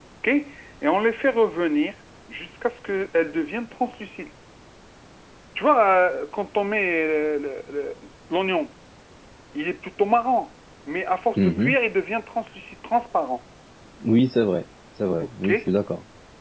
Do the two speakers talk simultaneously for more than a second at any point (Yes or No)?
No